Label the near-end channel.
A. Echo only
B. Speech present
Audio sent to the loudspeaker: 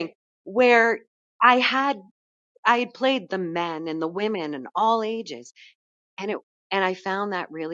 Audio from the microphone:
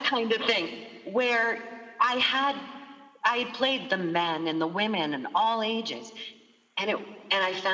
A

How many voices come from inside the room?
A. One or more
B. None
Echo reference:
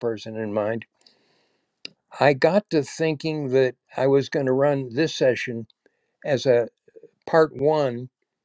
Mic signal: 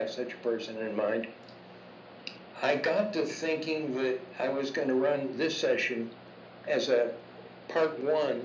B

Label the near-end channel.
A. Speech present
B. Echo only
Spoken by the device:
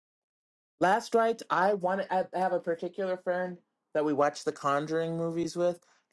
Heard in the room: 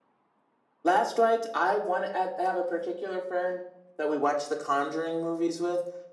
B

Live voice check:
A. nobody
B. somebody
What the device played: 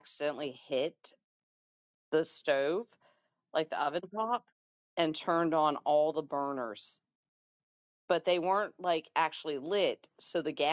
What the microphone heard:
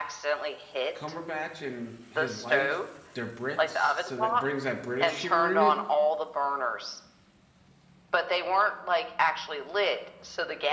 B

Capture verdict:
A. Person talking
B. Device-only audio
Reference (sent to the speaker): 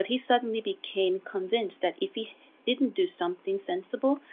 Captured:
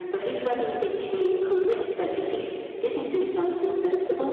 B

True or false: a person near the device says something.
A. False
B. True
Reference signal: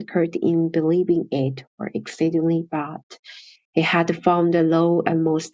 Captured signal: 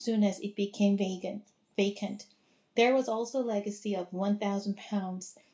B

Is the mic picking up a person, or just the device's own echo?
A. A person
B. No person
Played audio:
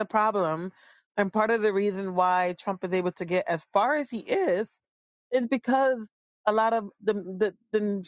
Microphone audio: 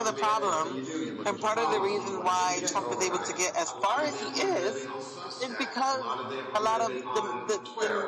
A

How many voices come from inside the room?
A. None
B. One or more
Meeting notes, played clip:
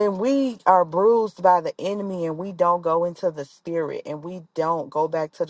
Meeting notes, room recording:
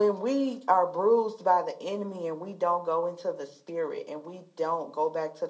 A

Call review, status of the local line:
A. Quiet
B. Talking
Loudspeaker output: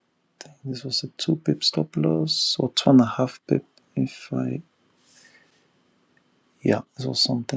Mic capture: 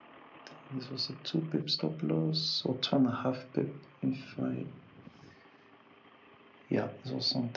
A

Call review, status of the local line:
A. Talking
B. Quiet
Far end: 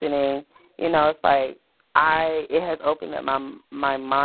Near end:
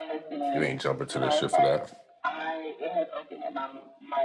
A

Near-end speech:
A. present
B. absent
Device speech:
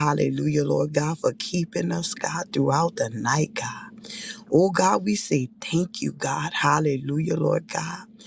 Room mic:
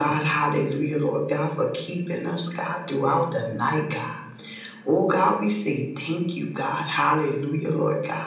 B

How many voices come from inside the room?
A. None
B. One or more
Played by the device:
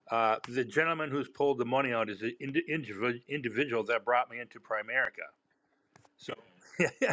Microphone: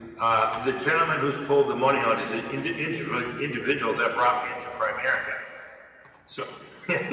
A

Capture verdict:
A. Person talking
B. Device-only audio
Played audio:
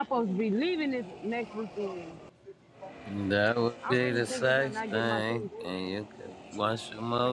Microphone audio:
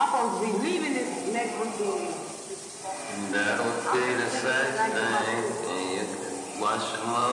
B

